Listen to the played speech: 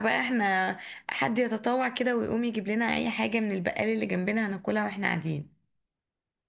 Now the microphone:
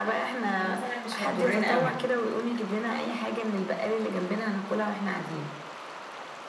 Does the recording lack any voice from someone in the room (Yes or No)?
No